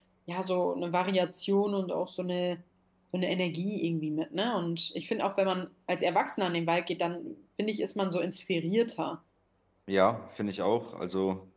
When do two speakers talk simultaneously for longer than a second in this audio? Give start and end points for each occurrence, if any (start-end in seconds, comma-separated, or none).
none